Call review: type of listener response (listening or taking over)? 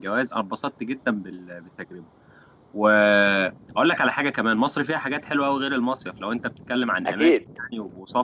listening